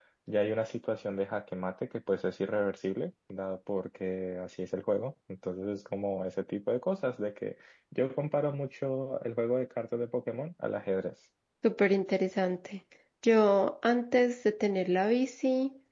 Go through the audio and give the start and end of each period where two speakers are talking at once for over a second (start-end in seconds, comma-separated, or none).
none